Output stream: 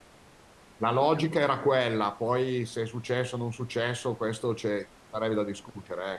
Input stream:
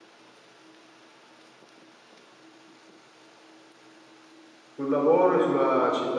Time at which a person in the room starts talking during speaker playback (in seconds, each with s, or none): 4.7 s